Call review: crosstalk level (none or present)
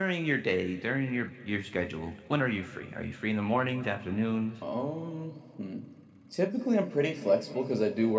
none